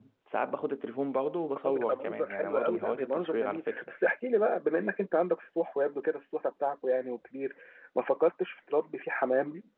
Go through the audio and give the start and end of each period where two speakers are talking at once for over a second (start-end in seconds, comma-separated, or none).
1.6-3.8